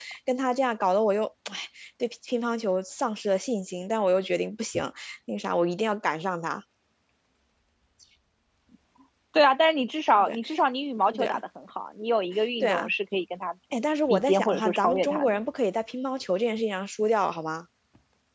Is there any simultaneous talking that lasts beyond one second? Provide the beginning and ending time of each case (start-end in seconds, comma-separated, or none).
14.1-15.4